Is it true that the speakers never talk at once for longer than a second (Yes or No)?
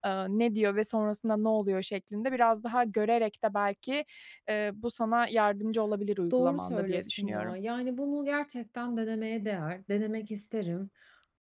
No